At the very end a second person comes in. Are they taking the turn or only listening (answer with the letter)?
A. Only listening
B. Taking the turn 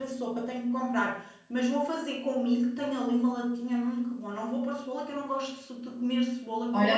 B